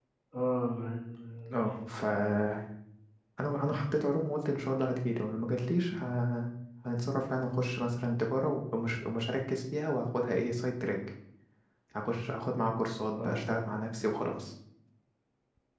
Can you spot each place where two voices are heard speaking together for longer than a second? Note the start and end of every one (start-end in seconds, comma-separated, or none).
none